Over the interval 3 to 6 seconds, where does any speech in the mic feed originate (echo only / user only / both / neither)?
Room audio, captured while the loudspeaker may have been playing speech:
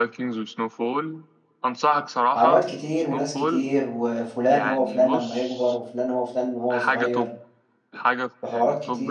both